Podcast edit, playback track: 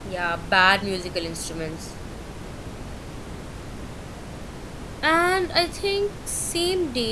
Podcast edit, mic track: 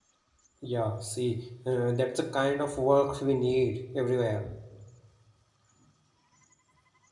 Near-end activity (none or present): present